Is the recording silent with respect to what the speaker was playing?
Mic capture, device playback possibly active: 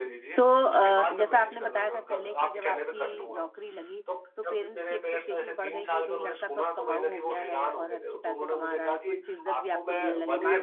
No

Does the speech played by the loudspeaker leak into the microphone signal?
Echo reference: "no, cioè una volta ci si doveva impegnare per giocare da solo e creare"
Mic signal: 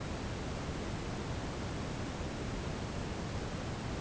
No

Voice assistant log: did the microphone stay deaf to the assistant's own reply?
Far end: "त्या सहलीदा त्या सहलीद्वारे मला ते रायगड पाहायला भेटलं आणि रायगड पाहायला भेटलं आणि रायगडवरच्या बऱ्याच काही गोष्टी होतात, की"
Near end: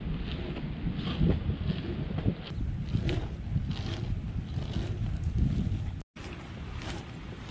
Yes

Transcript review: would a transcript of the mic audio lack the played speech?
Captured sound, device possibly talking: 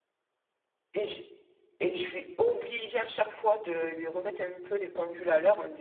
Yes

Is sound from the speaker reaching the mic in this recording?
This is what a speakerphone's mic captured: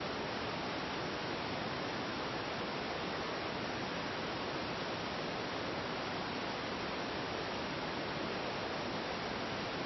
No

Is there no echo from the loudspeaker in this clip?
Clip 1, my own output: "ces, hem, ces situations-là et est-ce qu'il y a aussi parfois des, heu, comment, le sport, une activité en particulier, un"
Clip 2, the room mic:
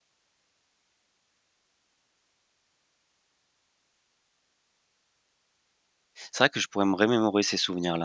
Yes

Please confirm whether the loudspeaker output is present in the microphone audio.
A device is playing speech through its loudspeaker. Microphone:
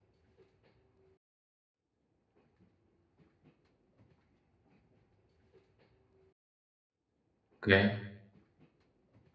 No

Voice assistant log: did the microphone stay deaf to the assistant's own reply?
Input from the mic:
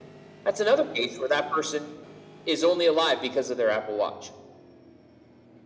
No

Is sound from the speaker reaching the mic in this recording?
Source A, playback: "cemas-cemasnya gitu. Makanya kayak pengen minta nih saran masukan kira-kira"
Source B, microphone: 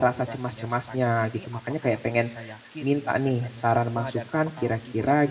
Yes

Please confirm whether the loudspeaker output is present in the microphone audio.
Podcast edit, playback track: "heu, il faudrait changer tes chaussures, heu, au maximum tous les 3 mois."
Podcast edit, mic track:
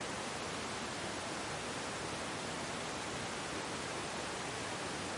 No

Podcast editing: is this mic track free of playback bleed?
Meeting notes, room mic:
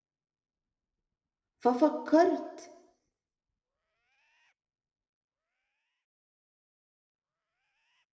Yes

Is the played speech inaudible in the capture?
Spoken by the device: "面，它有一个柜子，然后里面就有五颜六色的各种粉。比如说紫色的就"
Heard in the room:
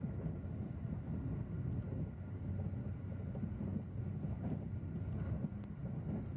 Yes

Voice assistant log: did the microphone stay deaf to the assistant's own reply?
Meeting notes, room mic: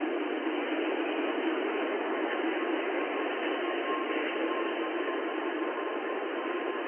Yes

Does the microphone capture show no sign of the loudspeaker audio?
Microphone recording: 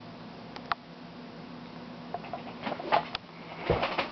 Yes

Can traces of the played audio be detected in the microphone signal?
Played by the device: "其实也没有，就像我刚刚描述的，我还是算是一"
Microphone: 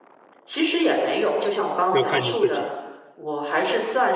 Yes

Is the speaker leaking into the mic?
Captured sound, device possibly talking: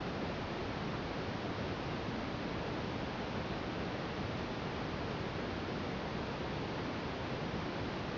No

